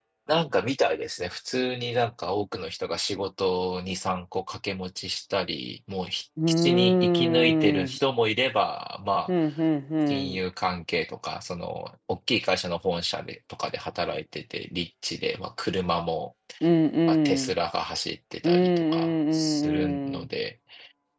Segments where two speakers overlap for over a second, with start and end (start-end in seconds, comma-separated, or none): 6.5-8.0, 18.4-20.3